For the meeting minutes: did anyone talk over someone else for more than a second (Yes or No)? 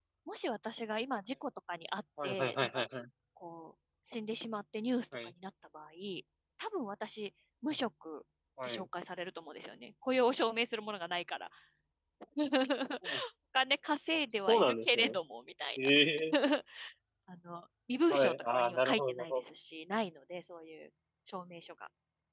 Yes